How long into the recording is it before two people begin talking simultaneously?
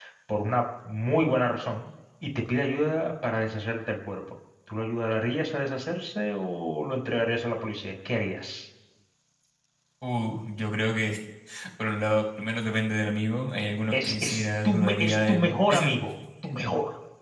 14 s

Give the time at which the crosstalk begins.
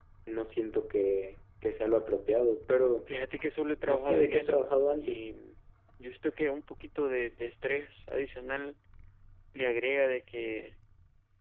4 s

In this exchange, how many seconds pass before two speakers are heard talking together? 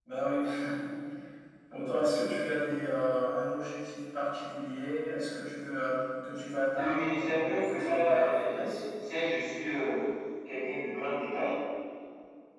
7 s

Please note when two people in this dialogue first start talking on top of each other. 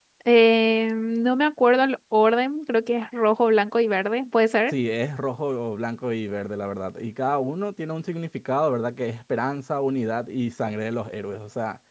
none

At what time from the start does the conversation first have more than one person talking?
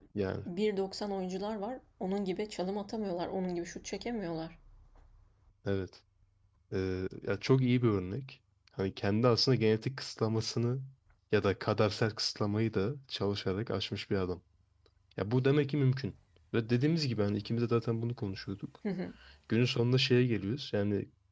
none

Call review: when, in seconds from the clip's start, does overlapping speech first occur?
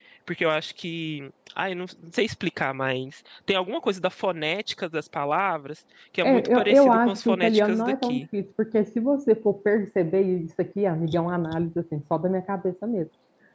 6 s

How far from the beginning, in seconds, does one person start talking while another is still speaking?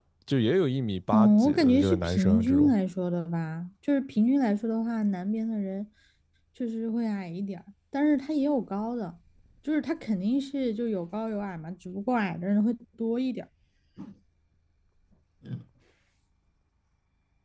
1 s

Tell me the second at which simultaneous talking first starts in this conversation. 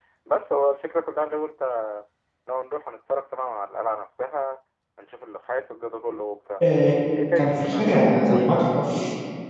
7 s

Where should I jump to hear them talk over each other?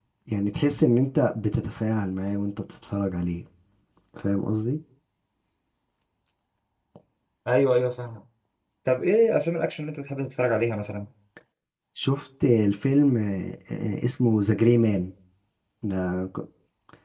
none

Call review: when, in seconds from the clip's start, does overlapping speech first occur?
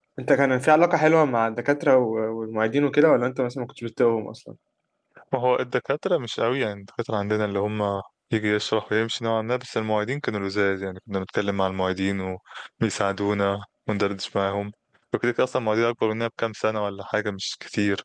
none

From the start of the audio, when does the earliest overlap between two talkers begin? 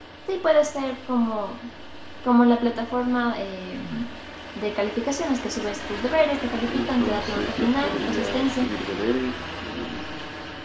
7 s

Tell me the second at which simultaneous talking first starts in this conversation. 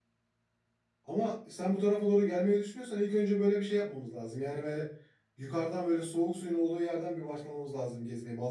none

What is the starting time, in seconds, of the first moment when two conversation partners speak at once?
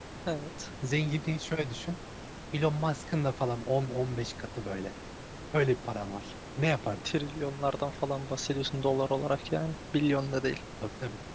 none

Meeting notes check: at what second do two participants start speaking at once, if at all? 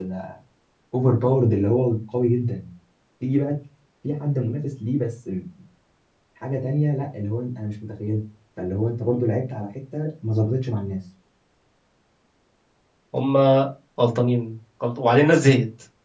none

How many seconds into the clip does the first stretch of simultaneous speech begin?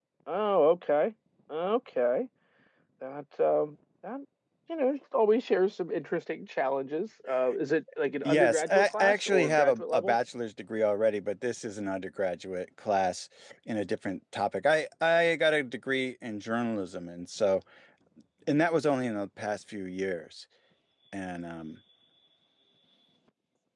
8 s

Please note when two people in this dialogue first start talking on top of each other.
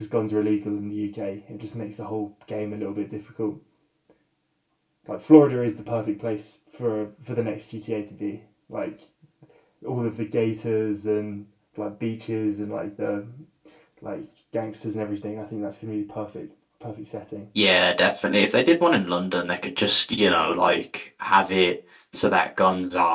none

